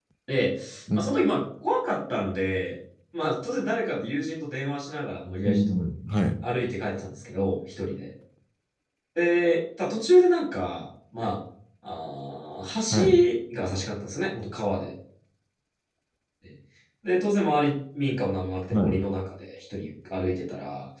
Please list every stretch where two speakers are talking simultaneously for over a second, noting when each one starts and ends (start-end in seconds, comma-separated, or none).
none